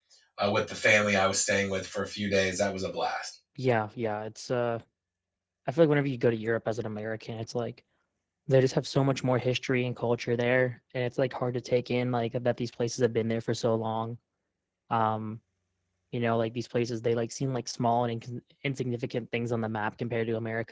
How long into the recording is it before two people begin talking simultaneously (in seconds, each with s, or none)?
none